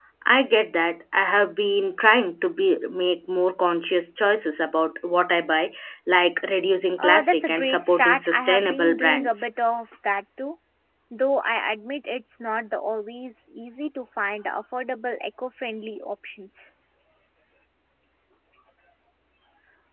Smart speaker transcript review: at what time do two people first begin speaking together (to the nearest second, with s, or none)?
7 s